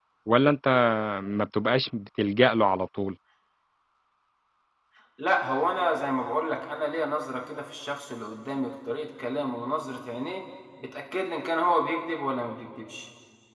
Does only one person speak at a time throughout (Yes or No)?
Yes